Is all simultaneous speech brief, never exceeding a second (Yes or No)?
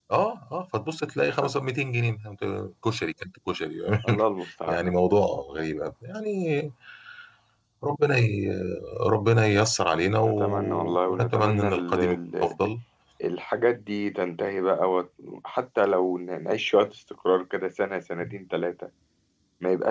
No